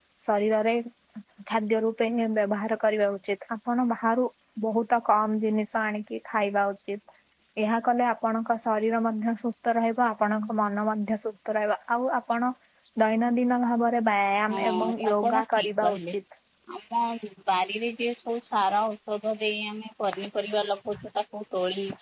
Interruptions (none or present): present